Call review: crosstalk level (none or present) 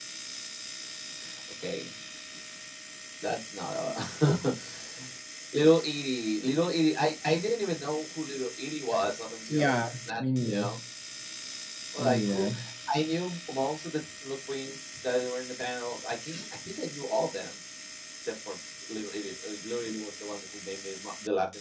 present